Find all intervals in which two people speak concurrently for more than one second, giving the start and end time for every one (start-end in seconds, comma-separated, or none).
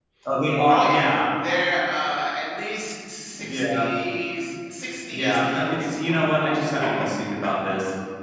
5.1-6.3